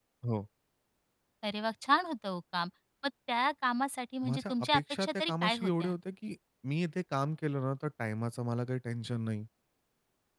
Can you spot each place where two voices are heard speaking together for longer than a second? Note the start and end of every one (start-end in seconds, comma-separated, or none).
4.2-5.9